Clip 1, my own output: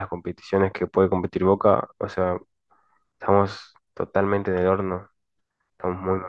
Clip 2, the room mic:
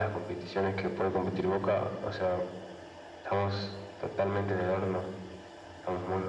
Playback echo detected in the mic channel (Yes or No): Yes